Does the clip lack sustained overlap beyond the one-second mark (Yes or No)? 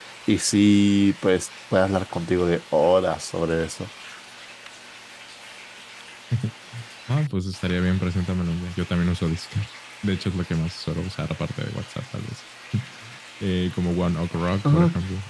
Yes